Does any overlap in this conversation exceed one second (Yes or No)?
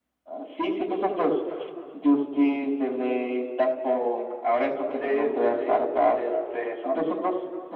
Yes